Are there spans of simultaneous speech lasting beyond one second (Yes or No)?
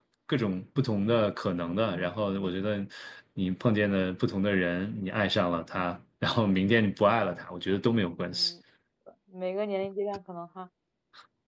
No